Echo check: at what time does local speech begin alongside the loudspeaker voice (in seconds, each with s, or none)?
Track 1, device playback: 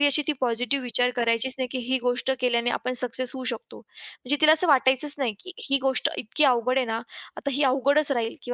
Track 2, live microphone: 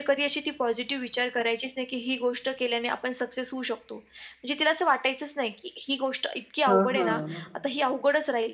6.7 s